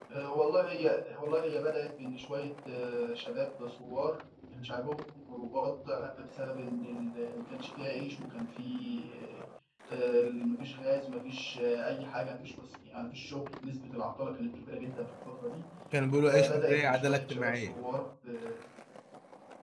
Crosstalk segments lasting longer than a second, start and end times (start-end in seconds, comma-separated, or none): 16.3-17.8